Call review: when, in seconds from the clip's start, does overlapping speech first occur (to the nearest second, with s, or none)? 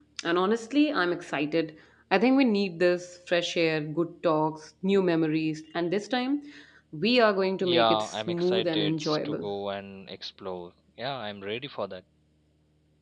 8 s